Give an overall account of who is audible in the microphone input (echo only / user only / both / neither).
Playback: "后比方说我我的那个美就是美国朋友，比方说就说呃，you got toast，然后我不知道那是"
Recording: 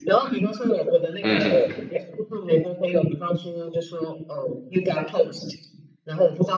both